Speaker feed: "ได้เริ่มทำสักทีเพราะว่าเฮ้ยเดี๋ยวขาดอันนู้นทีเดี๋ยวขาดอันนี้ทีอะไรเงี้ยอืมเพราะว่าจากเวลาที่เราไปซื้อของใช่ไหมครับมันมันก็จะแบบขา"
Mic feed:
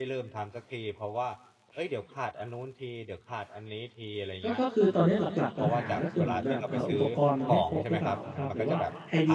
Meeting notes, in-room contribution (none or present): present